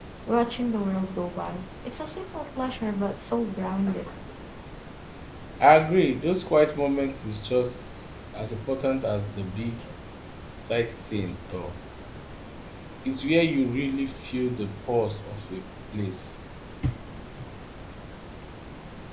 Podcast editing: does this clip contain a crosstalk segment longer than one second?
No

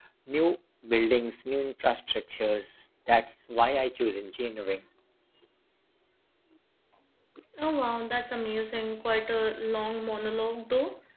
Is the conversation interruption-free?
Yes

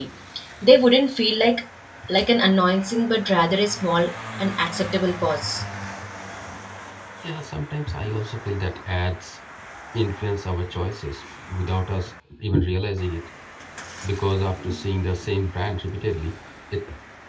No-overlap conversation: Yes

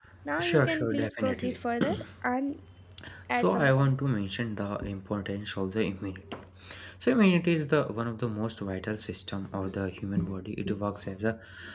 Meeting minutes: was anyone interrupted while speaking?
Yes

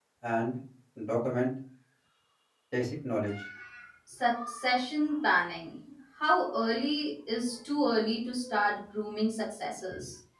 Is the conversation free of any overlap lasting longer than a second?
Yes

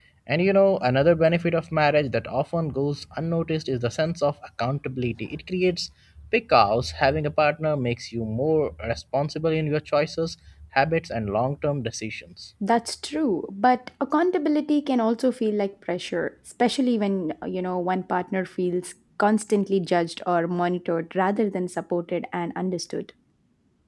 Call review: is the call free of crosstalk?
Yes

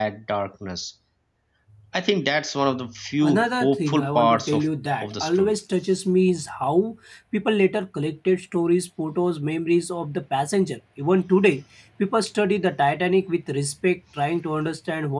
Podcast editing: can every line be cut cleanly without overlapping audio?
No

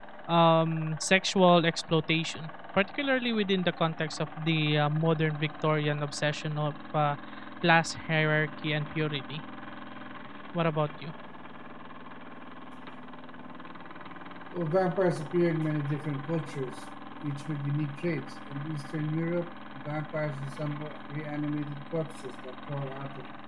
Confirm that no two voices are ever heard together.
Yes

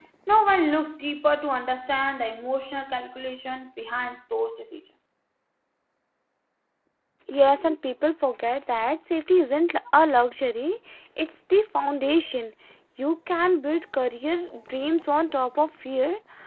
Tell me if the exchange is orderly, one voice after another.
Yes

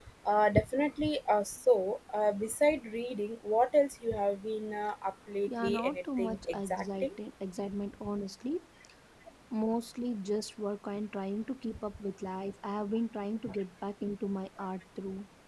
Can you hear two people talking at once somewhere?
Yes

